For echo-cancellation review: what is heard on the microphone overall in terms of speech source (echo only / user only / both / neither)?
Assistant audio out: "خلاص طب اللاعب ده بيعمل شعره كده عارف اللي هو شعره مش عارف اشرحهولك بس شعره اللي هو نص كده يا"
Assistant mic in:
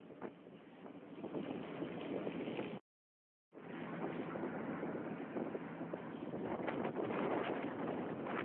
neither